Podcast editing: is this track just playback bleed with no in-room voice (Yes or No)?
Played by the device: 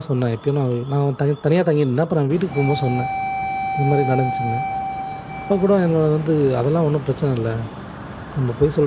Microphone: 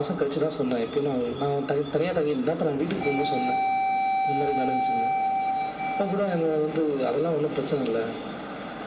Yes